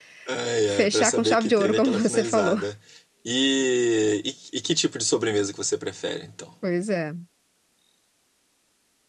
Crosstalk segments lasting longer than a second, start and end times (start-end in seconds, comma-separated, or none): 0.7-2.6